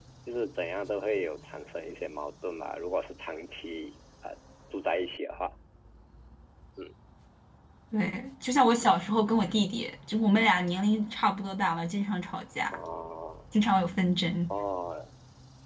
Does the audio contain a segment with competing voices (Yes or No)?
No